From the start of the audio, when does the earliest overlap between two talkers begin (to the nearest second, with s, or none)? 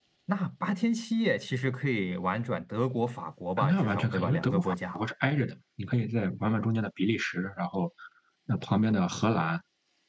4 s